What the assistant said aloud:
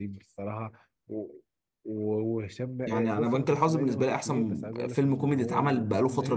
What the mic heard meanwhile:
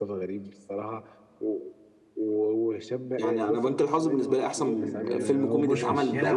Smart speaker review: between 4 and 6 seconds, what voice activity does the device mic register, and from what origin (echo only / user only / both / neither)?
both